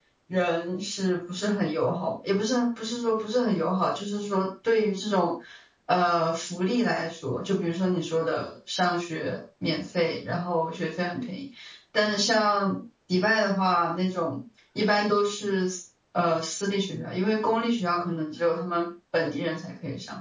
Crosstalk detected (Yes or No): No